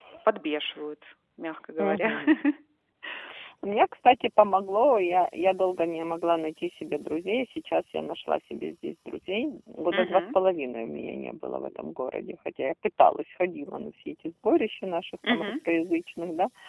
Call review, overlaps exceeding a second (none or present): none